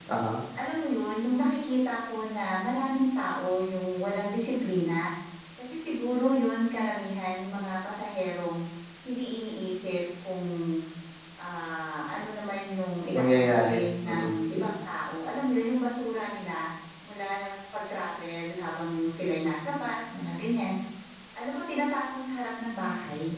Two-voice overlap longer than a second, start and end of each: 13.1-14.3

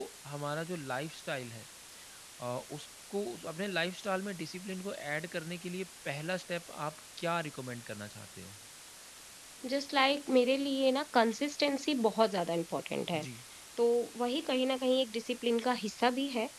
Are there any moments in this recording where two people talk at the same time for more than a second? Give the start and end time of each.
none

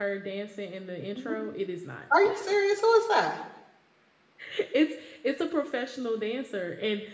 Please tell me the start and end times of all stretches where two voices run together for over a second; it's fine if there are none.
none

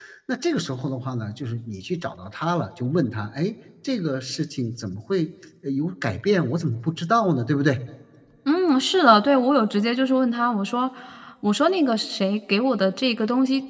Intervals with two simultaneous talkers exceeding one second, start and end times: none

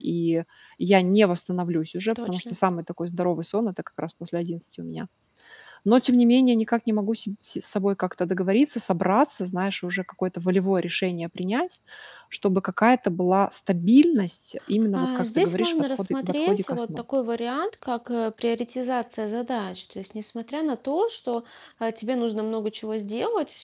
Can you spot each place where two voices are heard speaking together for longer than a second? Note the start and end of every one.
15.0-16.8

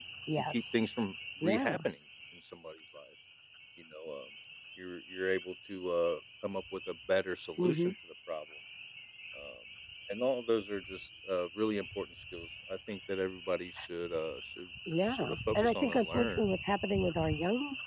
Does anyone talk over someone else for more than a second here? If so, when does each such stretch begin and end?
15.1-16.5

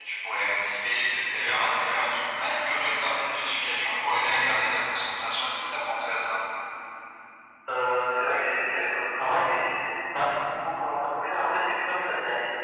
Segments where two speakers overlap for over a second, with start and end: none

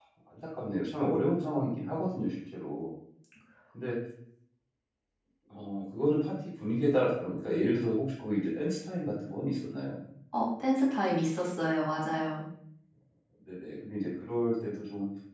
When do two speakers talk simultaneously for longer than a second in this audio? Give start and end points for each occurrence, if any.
none

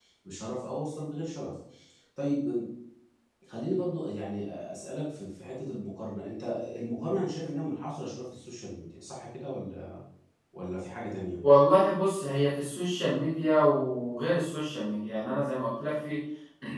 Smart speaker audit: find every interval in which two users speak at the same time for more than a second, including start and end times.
none

